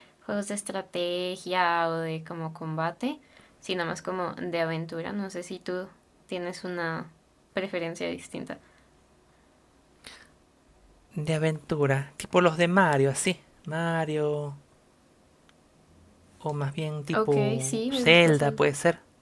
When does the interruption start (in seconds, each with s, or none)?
17.1 s